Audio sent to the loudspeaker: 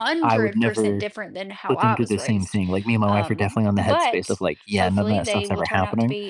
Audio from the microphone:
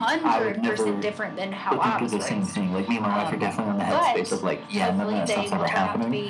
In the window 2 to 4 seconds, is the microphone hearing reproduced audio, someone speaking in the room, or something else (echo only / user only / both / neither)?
echo only